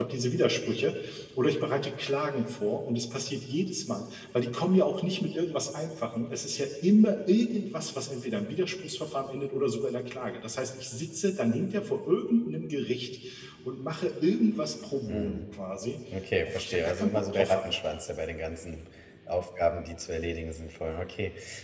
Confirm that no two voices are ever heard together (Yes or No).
No